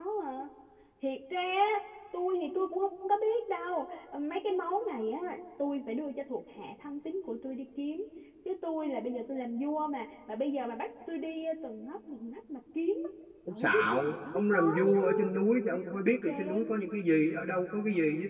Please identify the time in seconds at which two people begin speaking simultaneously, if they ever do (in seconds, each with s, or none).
13.5 s